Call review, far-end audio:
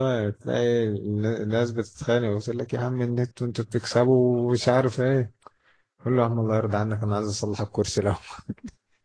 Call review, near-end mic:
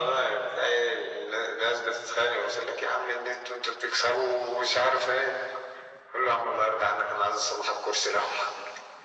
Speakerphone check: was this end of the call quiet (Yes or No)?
Yes